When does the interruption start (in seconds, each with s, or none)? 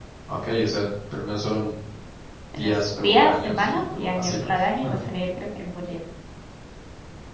2.6 s